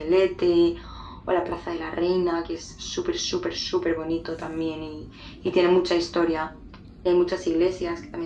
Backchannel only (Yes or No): Yes